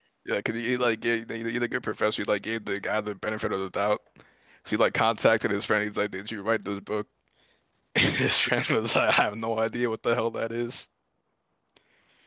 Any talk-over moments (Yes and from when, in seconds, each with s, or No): No